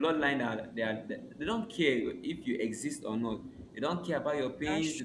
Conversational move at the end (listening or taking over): listening